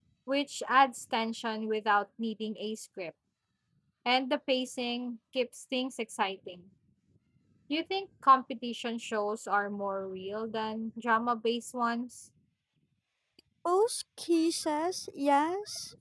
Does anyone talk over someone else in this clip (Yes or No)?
No